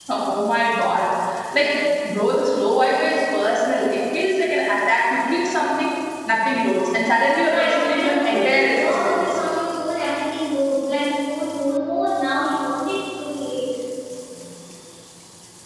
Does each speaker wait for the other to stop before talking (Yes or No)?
No